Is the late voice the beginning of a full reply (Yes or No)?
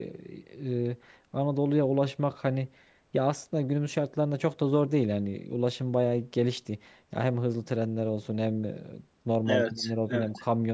No